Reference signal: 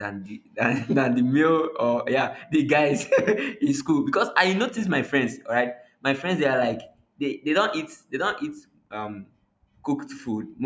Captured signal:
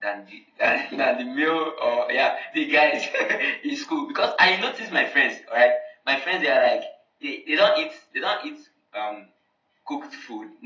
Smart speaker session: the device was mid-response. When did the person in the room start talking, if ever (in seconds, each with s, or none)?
none